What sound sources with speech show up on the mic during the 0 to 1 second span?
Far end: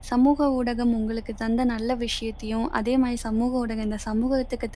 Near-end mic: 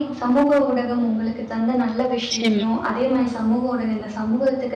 echo only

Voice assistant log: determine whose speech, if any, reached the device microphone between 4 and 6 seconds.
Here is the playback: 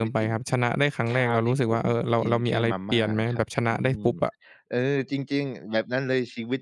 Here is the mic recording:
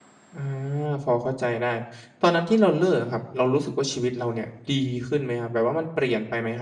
user only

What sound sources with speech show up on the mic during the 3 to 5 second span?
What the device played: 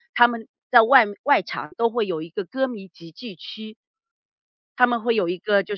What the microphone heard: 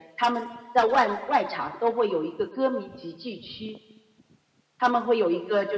echo only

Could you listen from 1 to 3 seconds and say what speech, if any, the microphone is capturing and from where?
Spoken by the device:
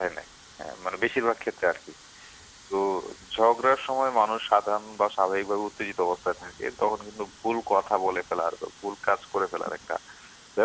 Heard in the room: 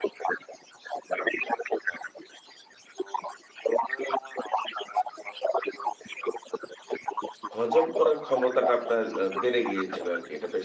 echo only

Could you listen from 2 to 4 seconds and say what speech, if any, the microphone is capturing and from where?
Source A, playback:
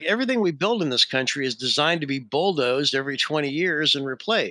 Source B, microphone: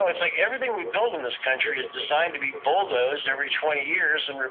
both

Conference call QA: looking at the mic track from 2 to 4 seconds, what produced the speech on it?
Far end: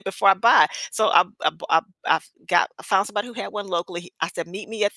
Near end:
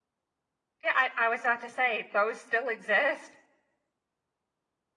user only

